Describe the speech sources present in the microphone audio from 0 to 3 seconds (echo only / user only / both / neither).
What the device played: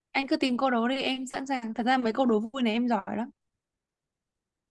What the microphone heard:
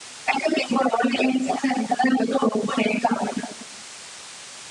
echo only